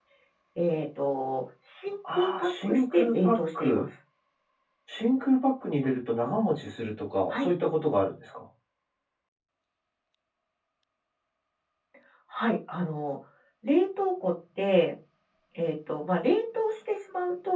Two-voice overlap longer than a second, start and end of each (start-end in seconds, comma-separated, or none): 2.1-3.9